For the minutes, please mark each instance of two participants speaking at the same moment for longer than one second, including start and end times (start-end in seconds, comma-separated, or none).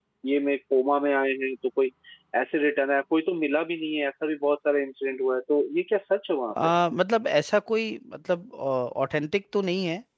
none